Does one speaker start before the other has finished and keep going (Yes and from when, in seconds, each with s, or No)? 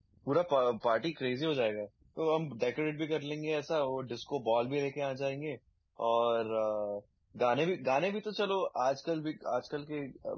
No